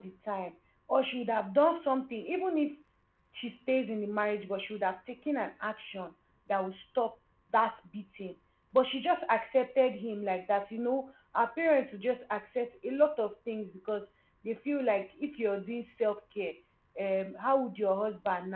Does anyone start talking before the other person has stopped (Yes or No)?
No